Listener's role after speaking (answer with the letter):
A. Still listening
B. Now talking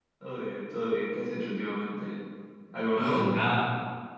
B